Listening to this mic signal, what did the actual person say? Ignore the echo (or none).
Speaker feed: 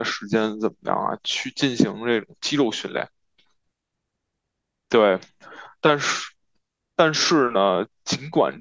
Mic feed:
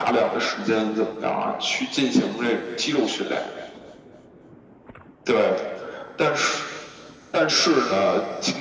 none